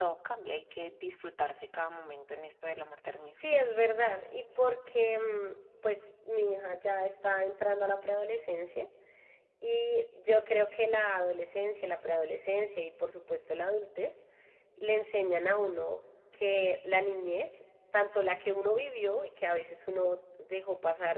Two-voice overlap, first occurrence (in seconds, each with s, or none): none